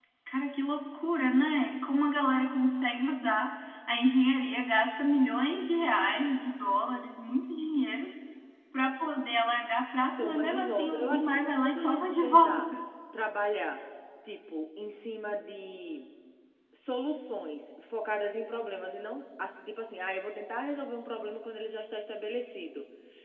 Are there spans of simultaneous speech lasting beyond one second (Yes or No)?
Yes